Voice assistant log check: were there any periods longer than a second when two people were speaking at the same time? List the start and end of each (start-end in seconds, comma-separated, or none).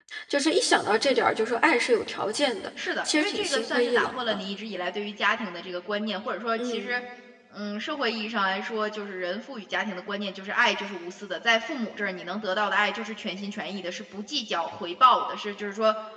2.8-4.4